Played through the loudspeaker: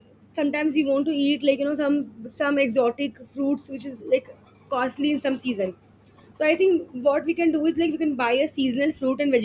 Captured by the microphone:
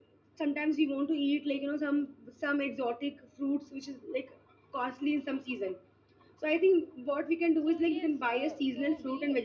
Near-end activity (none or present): present